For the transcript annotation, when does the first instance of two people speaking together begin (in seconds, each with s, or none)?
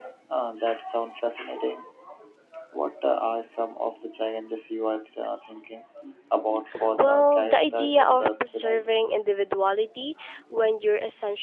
6.9 s